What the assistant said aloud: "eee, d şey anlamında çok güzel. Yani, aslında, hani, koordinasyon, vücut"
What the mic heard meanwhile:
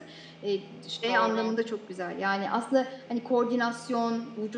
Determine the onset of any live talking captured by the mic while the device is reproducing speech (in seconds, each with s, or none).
1.1 s